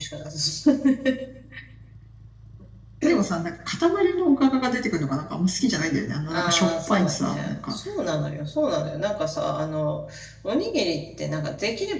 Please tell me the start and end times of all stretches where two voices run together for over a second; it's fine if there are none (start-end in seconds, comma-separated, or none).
6.3-7.8